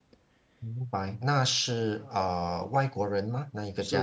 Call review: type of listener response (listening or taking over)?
taking over